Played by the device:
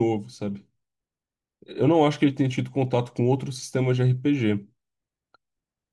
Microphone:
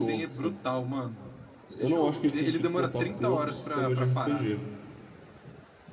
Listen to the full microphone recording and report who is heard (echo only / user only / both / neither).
both